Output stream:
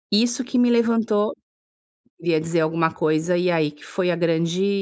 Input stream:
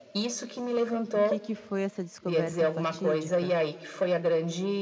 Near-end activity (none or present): present